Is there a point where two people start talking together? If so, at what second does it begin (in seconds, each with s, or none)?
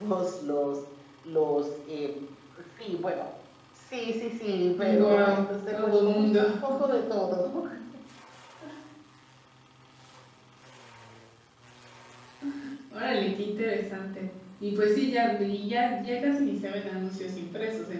4.8 s